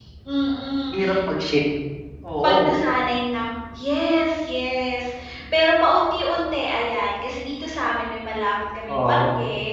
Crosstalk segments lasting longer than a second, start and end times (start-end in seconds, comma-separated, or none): none